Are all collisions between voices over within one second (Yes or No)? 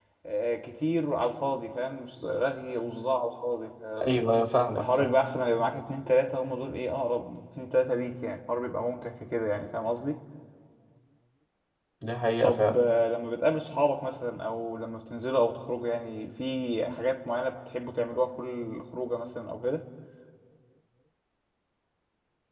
Yes